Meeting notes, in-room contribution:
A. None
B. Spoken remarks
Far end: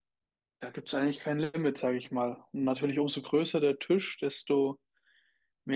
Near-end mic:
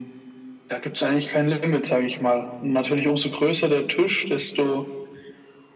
A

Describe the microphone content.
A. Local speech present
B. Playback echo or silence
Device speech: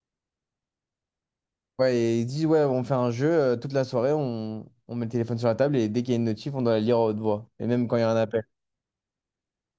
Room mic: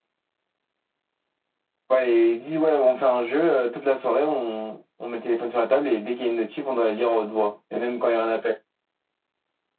B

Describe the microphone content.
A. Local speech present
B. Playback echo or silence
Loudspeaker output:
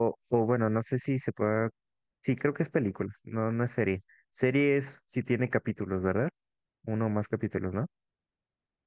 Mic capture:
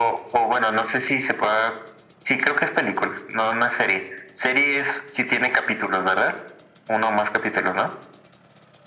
B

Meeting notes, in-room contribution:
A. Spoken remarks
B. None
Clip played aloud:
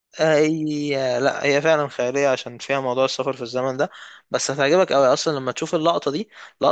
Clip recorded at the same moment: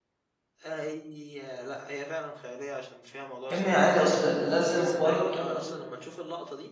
A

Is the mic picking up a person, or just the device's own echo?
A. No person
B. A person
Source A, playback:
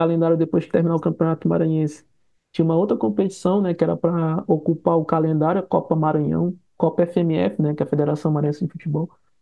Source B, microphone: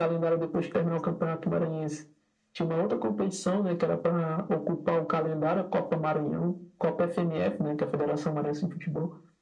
A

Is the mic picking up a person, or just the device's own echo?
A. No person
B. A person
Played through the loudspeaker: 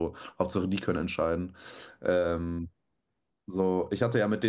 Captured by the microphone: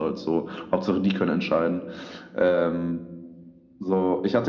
A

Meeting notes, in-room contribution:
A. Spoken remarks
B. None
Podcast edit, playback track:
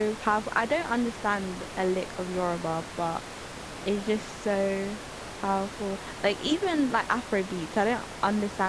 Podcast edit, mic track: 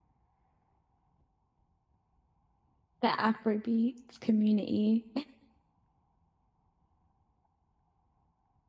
A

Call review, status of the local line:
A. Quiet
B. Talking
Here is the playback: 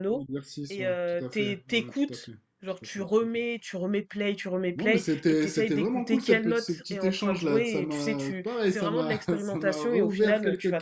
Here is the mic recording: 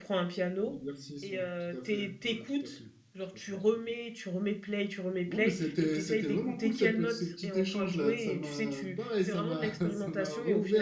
A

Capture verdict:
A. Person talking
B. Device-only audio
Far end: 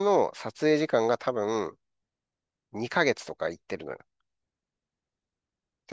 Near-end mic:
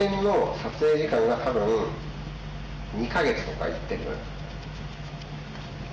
B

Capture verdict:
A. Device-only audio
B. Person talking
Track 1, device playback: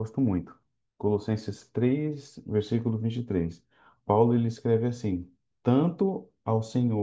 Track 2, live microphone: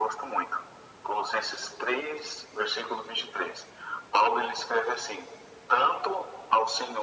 A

